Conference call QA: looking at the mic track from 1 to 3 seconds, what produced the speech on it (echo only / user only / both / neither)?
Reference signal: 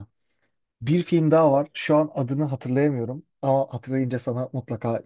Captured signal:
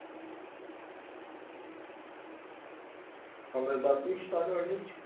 neither